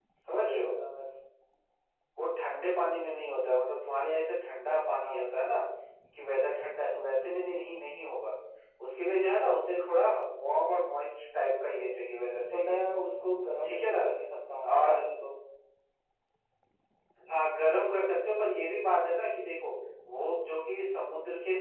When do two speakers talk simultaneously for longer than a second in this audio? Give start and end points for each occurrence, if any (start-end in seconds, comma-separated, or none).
none